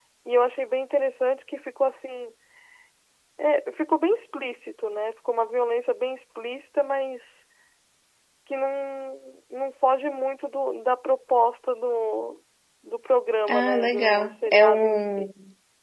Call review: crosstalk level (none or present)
present